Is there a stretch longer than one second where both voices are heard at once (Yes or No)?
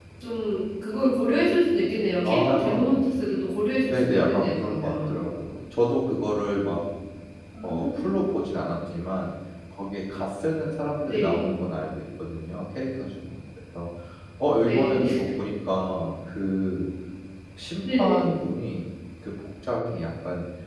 Yes